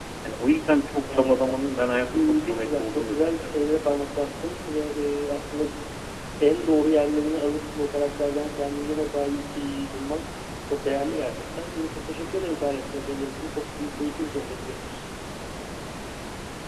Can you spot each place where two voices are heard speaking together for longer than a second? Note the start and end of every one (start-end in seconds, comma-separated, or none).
2.1-3.5